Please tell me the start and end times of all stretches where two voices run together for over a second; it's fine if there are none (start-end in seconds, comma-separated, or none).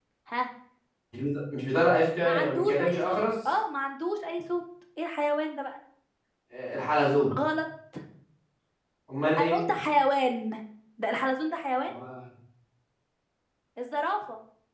2.2-3.6